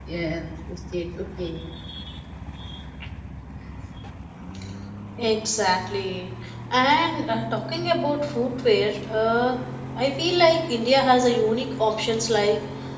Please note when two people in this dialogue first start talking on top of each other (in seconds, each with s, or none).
none